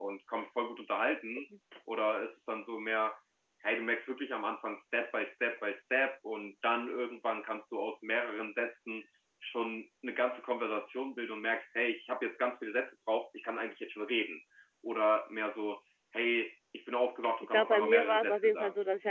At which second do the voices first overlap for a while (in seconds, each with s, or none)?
17.5 s